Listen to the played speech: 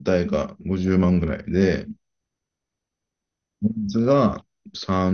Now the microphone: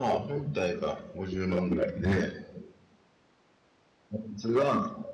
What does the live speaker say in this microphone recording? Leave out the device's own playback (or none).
none